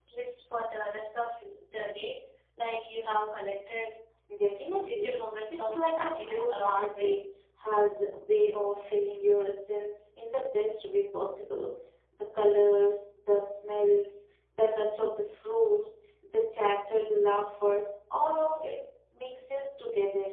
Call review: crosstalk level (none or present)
present